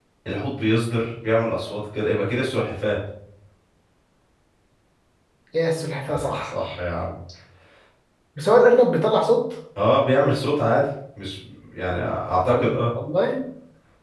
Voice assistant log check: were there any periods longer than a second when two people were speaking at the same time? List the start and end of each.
none

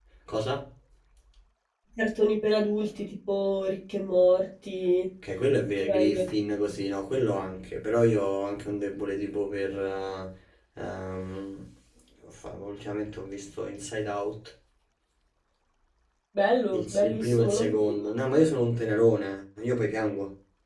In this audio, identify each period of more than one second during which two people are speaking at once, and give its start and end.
16.7-18.0

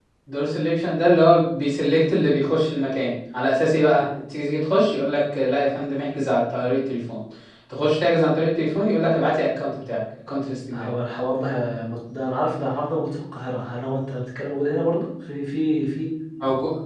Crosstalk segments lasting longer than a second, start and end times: none

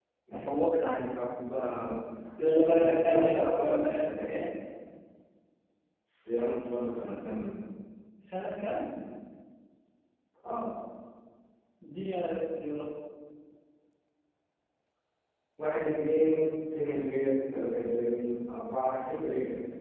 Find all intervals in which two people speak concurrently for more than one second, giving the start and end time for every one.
2.6-4.4

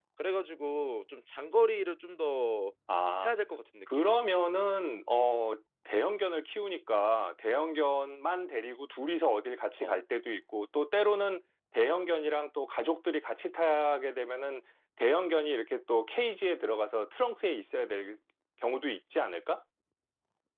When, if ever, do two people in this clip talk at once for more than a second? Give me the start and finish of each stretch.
none

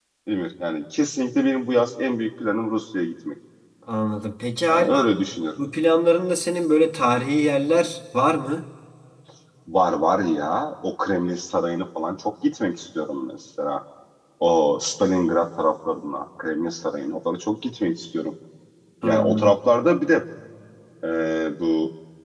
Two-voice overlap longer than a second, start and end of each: none

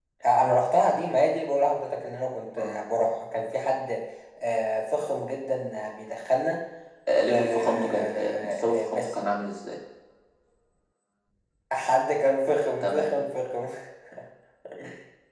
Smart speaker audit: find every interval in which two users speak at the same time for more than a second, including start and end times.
7.3-9.2

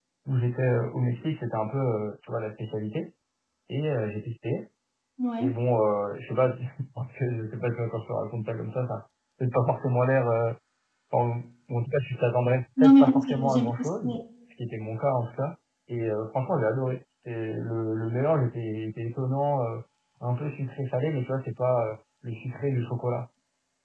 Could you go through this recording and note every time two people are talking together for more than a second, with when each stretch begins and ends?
12.8-14.2

